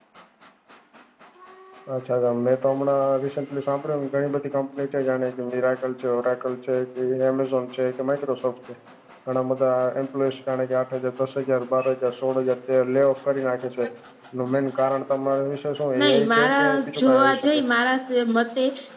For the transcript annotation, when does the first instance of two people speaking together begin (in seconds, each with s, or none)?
16.0 s